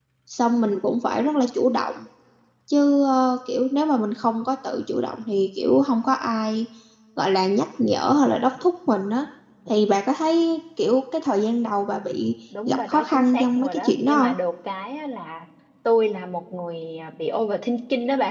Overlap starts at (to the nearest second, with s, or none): 13 s